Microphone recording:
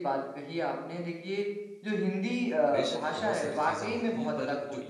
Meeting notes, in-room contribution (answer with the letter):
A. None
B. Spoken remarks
B